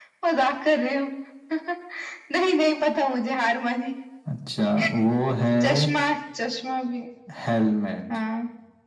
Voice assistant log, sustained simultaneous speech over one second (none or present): none